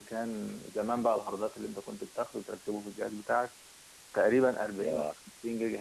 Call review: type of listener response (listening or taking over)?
listening